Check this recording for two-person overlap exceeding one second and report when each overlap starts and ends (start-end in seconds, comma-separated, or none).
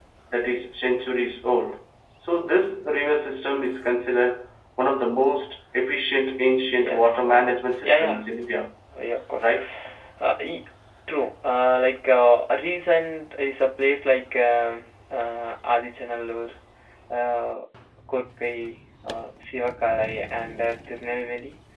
6.8-8.2